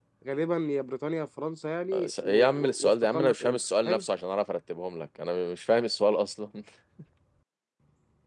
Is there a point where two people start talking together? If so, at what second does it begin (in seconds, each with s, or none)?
1.9 s